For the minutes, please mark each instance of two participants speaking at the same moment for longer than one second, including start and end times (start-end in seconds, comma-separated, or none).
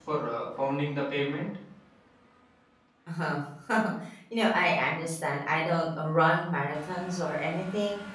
none